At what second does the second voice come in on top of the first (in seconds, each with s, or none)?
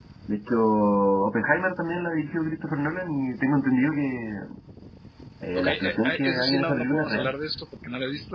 5.6 s